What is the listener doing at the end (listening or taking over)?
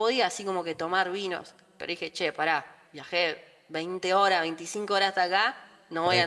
listening